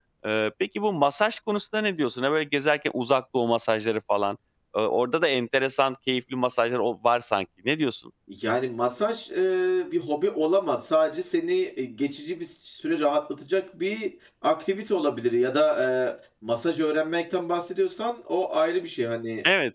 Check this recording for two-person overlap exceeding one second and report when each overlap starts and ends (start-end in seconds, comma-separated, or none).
none